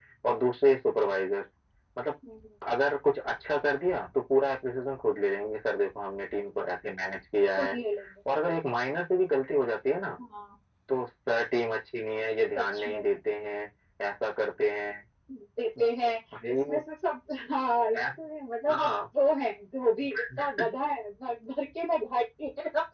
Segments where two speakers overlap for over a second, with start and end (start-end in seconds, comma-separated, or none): none